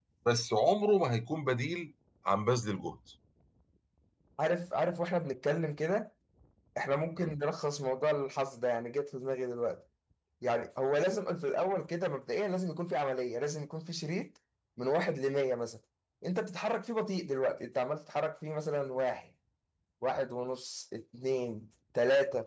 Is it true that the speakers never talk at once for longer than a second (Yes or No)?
Yes